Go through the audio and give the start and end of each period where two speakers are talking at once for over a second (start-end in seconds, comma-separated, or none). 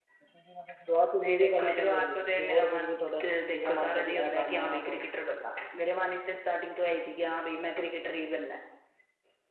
1.2-5.0